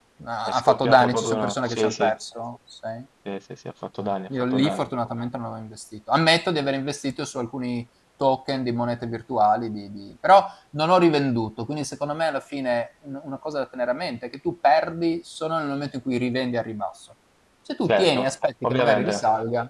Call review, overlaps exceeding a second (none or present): present